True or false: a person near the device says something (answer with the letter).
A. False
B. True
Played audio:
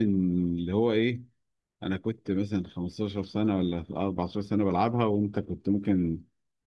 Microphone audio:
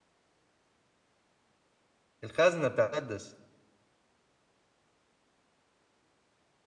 B